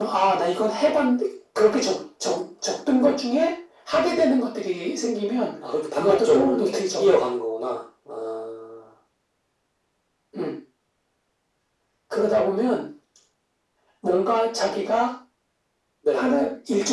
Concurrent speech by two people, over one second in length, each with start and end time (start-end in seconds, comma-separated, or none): 6.0-7.2